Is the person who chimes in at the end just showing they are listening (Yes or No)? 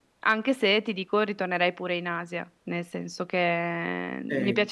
No